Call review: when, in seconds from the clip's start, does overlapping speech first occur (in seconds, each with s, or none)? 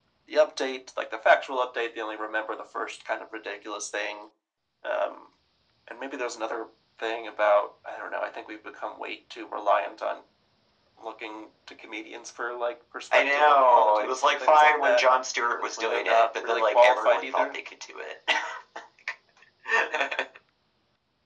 13.1 s